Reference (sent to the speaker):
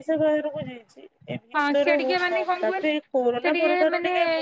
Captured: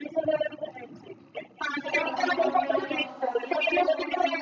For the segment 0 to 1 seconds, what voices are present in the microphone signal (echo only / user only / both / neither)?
echo only